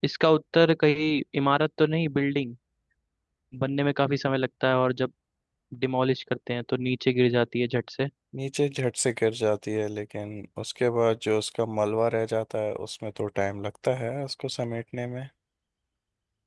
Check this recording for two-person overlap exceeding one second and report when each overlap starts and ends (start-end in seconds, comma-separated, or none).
none